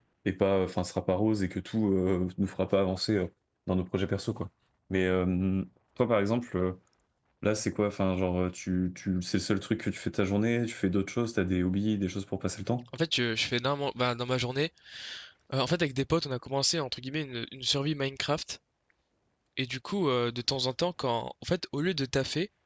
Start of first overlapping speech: none

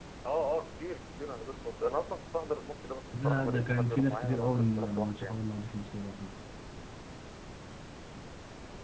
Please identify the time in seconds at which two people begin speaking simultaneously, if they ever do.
3.1 s

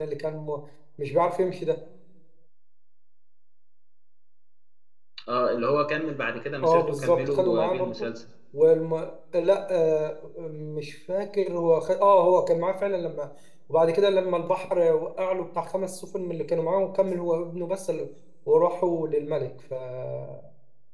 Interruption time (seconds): 6.6 s

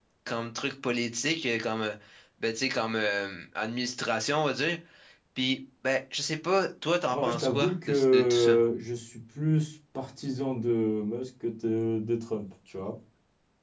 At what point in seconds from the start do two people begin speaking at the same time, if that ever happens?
7.1 s

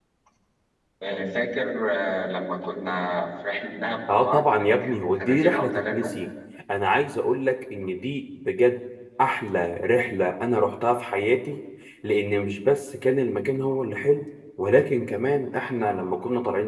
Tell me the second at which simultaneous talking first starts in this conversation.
4.1 s

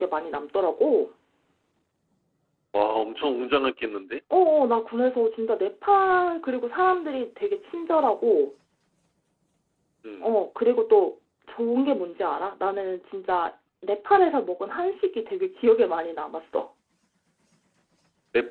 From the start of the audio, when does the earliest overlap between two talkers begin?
none

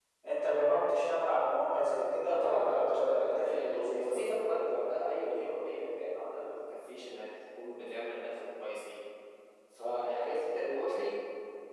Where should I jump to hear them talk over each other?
2.2 s

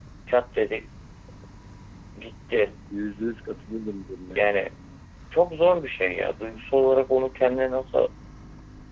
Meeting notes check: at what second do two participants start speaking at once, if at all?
none

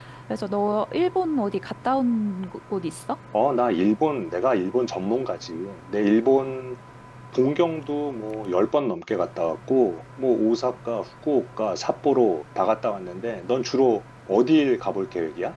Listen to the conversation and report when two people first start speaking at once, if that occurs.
none

